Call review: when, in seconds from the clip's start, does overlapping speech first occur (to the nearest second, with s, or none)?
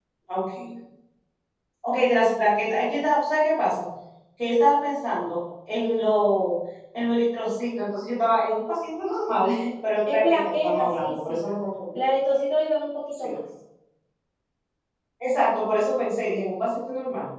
10 s